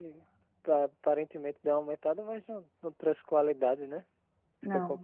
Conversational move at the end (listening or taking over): taking over